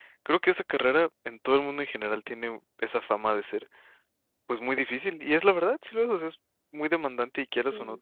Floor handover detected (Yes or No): No